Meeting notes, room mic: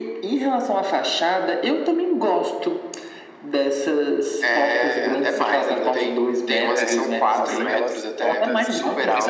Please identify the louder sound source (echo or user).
echo